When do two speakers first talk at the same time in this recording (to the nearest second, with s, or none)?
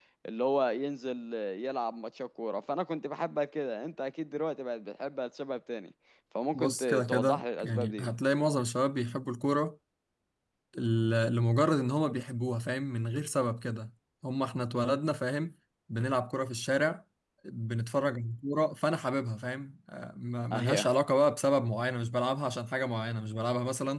7 s